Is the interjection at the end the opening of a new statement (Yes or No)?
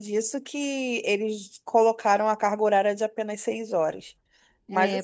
Yes